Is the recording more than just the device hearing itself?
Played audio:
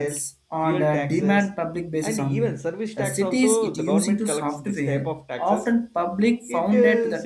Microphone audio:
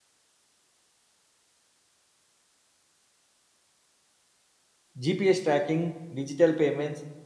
Yes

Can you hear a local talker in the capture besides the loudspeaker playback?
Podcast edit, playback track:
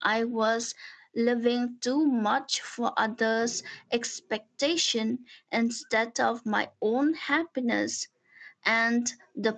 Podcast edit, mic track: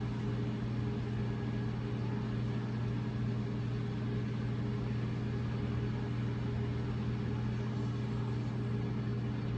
No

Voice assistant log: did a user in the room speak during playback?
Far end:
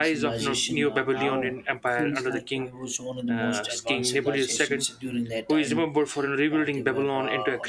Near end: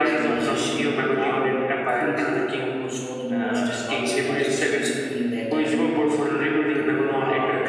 No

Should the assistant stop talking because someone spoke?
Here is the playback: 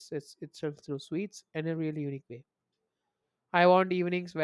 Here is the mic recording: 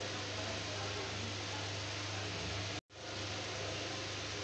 No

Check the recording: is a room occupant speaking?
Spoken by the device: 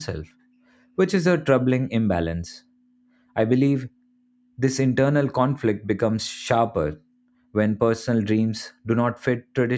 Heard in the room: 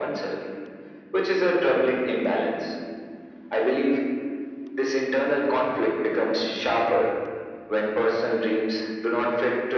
No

